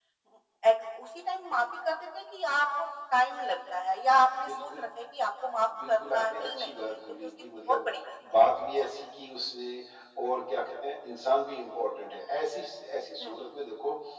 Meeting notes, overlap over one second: present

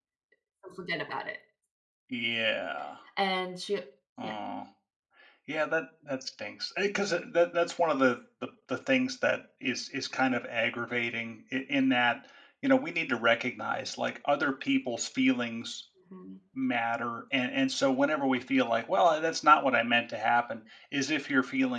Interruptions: none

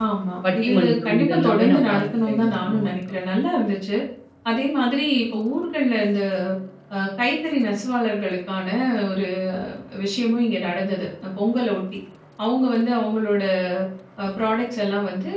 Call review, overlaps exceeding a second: present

